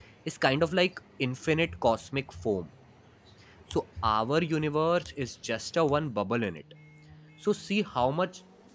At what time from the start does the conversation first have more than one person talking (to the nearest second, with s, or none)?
none